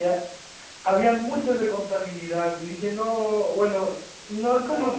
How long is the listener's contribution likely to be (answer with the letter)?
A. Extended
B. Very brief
B